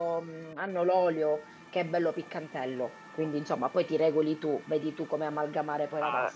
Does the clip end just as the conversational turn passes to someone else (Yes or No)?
Yes